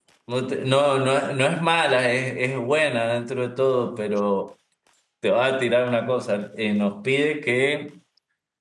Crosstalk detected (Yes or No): No